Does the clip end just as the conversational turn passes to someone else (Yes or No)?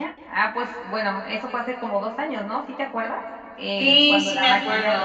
Yes